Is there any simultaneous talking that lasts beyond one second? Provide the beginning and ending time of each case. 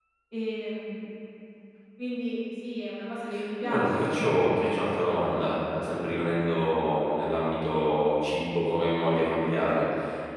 3.6-5.9

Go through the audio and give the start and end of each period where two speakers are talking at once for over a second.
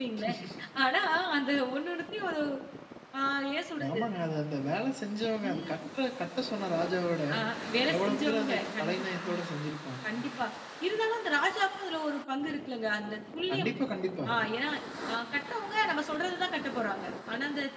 7.9-9.4

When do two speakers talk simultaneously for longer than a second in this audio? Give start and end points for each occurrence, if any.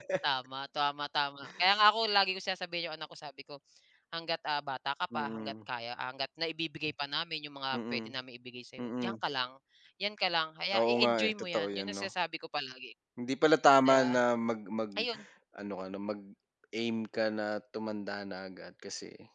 10.8-12.1

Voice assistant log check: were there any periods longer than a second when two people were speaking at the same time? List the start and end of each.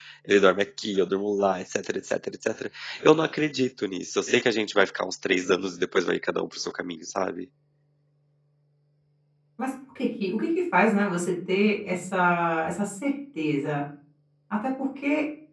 none

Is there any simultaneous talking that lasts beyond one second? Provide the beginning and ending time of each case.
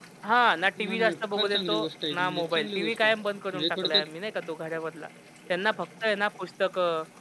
0.8-3.1

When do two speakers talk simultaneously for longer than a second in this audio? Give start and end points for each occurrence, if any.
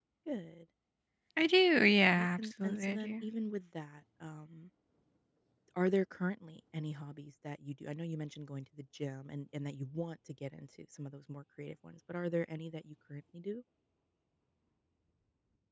2.0-3.2

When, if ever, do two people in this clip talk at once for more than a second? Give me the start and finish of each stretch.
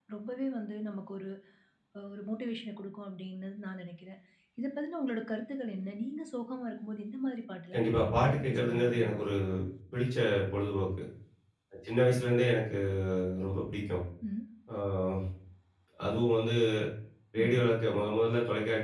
7.7-9.2

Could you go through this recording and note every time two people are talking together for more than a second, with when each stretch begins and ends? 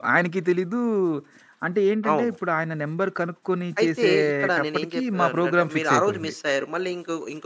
3.8-6.3

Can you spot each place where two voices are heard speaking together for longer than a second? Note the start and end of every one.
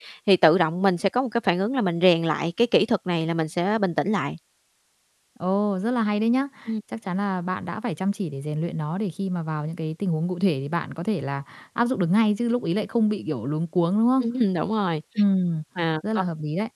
none

